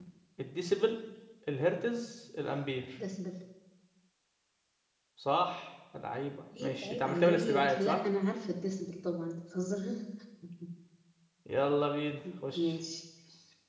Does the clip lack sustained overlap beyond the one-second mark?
No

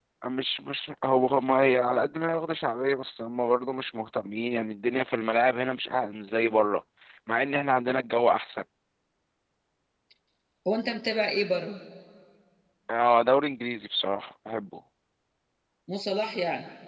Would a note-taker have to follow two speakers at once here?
No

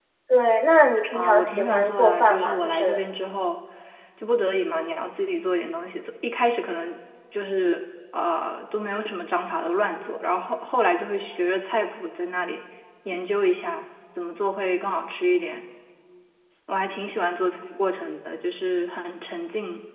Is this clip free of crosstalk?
No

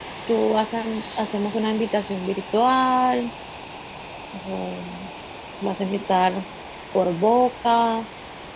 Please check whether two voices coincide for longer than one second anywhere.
No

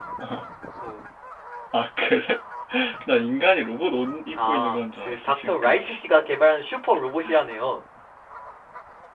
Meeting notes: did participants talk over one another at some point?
Yes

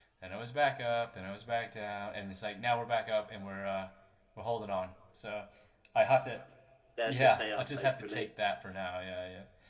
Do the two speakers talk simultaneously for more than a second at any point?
Yes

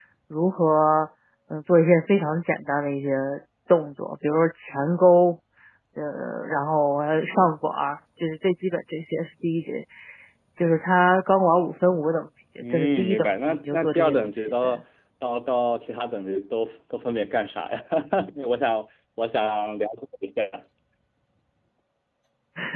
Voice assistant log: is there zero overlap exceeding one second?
No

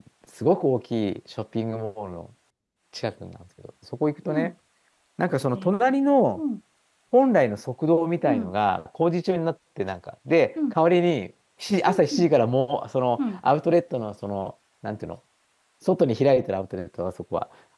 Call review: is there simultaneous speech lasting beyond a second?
No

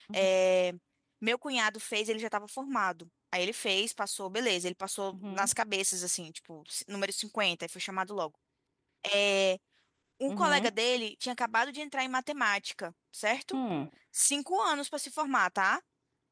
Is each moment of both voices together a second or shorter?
Yes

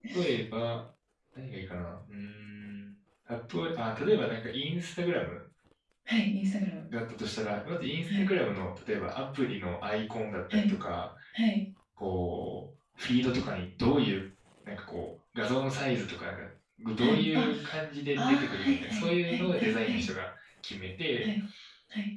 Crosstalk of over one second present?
Yes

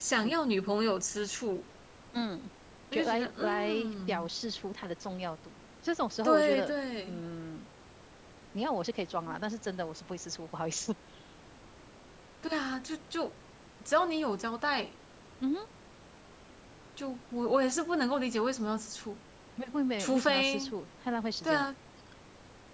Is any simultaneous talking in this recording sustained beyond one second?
Yes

